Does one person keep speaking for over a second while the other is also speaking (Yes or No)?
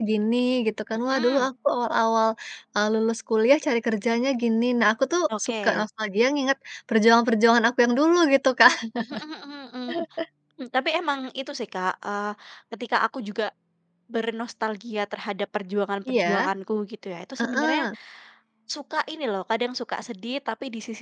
No